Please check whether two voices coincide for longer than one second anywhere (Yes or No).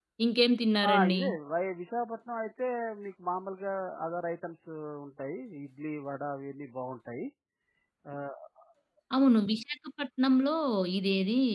No